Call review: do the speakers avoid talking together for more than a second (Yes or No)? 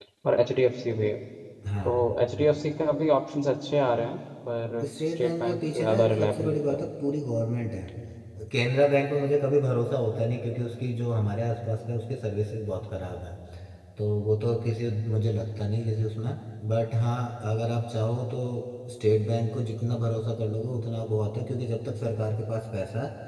No